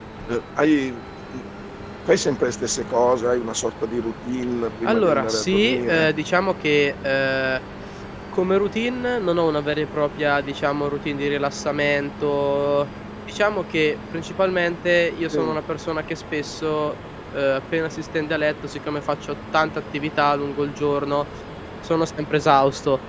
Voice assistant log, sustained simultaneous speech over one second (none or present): present